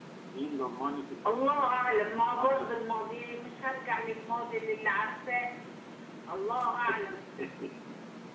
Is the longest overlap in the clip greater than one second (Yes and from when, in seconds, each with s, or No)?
Yes, from 1.3 s